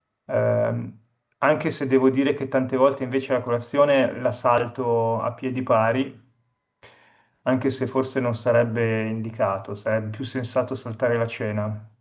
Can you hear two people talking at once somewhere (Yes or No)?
No